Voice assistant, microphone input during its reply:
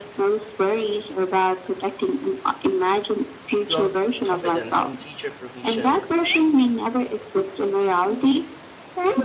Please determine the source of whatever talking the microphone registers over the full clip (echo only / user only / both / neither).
both